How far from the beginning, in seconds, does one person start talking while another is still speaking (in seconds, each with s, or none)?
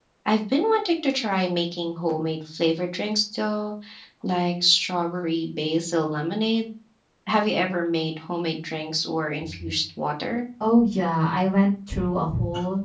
none